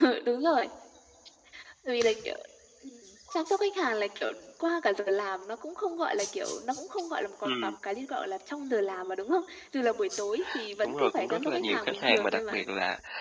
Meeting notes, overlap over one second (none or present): present